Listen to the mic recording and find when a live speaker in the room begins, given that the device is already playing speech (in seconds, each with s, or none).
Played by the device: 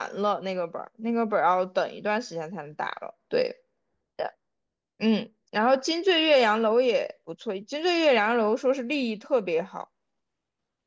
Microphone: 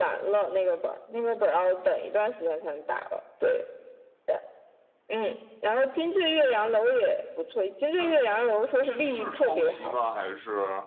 8.0 s